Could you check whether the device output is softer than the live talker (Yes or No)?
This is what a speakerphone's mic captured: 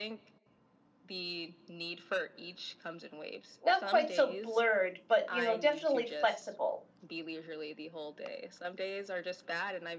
Yes